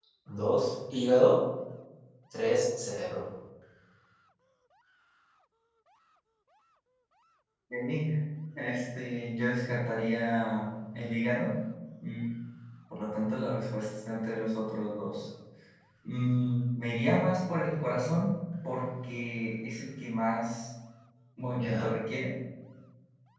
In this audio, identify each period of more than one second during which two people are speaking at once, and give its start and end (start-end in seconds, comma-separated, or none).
none